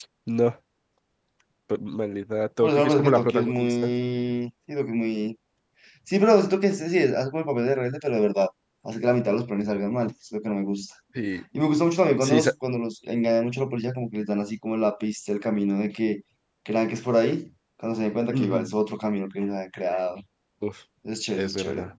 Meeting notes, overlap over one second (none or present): present